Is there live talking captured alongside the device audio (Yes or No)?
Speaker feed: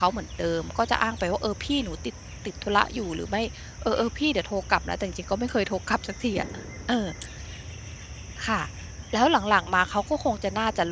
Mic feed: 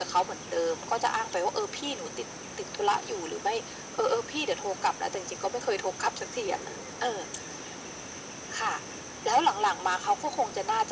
No